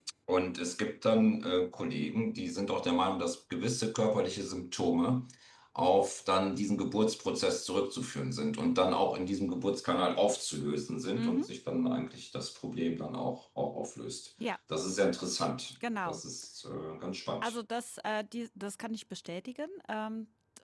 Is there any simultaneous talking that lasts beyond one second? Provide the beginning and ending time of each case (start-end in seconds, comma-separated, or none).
none